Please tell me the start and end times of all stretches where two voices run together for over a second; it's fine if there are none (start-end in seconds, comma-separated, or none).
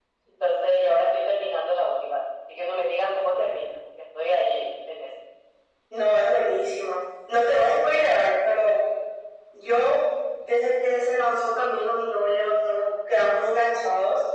none